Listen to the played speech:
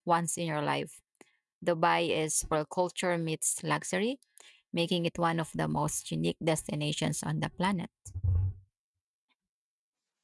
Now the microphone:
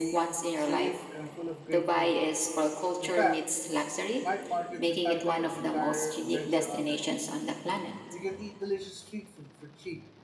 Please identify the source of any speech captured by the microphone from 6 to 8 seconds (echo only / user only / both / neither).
both